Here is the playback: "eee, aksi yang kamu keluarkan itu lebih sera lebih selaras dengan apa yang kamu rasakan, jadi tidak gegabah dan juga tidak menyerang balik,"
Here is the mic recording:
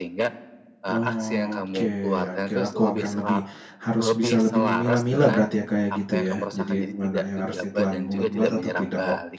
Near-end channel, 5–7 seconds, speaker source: both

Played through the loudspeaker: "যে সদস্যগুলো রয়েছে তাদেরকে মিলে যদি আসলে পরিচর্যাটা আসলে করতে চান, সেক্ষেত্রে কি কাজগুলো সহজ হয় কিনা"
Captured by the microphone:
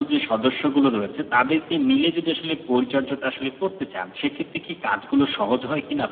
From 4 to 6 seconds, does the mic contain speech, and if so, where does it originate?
echo only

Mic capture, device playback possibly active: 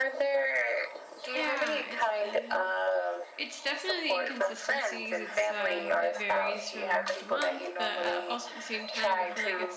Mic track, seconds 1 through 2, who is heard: both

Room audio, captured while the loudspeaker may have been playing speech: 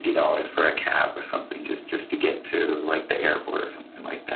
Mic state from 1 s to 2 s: echo only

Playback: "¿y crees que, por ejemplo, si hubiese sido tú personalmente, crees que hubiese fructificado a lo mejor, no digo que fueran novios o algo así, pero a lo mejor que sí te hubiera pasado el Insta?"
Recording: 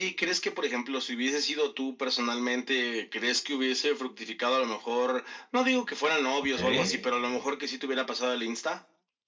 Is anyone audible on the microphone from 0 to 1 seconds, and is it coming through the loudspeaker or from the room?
echo only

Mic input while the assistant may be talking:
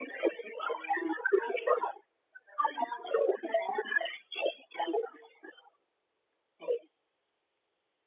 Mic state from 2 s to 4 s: echo only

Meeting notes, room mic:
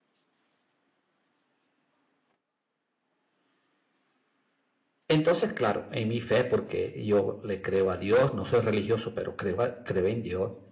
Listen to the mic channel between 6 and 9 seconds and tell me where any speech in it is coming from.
user only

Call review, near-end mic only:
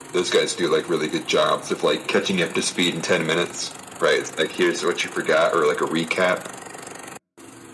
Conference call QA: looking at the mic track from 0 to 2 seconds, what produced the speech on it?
echo only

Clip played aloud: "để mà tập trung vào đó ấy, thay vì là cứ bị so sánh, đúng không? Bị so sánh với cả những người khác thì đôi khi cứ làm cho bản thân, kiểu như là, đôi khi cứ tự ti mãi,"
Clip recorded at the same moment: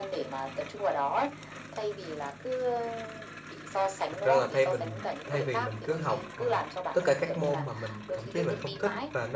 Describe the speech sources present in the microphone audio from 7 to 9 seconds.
both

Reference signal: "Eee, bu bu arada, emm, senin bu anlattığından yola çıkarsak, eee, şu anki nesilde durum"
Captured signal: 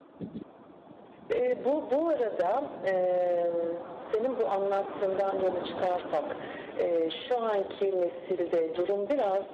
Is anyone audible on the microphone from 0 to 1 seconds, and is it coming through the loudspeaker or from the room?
neither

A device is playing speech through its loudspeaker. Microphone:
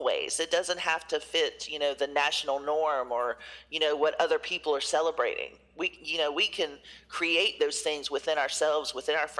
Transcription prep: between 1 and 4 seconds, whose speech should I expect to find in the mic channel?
echo only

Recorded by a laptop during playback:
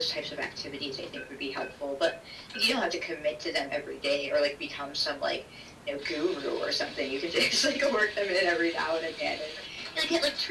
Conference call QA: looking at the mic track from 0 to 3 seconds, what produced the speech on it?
echo only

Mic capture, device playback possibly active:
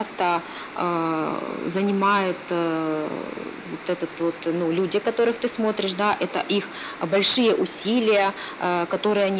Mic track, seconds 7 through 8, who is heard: echo only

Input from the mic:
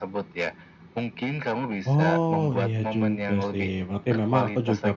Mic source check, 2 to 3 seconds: both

